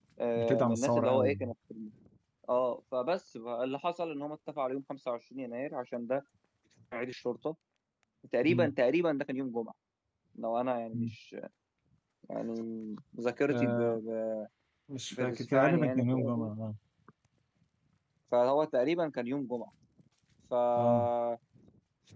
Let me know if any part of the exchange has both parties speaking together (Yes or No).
Yes